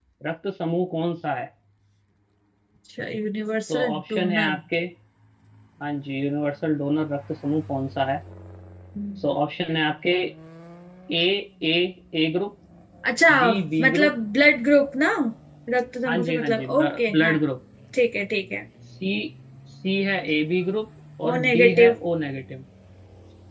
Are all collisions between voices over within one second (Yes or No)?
No